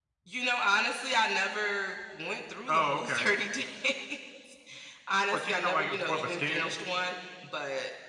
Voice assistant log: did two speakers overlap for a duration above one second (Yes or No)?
Yes